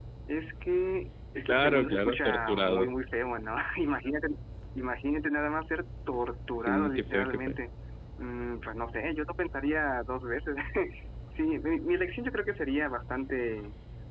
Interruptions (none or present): present